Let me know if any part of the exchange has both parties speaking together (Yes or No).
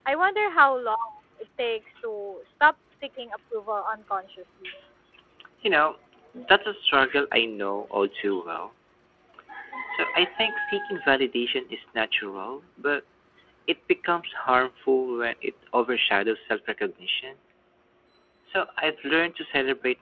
No